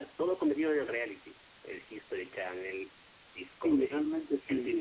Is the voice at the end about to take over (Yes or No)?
Yes